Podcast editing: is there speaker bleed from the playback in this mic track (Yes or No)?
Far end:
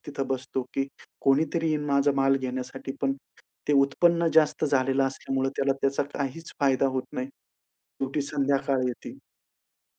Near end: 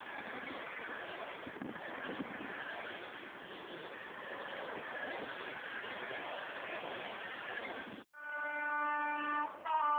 No